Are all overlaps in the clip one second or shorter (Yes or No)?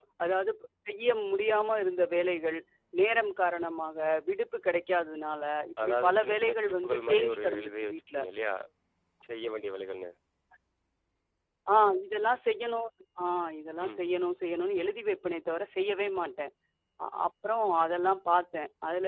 No